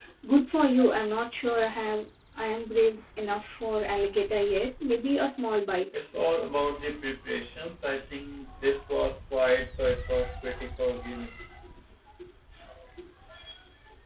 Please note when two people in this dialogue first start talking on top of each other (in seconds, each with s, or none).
none